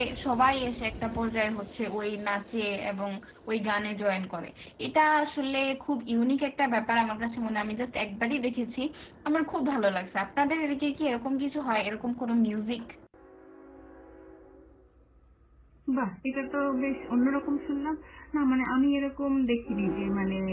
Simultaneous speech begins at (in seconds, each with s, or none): none